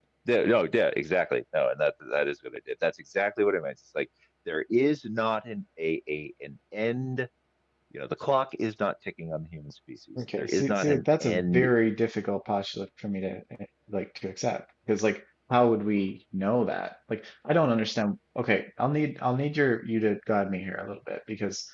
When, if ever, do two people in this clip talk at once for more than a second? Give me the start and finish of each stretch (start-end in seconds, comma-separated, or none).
10.2-11.7